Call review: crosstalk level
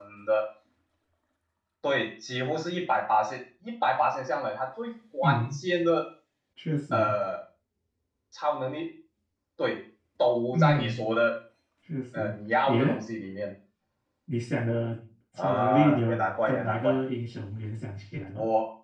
present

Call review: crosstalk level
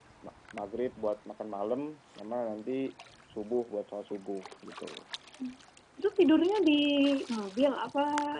none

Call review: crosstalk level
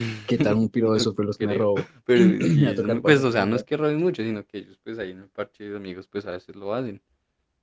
present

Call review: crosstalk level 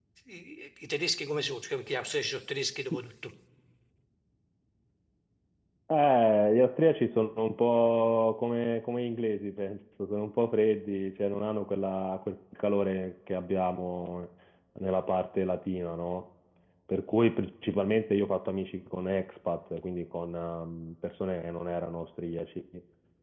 none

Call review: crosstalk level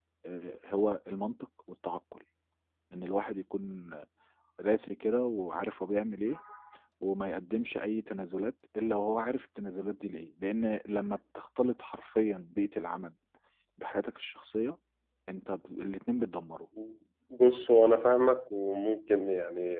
none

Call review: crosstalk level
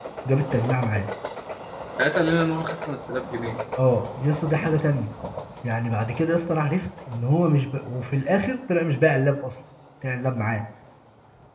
none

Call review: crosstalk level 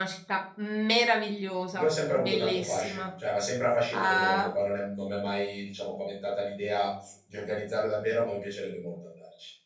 present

